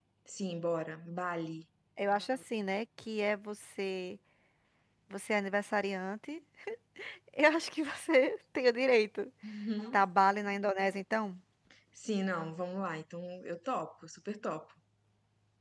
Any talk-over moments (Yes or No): No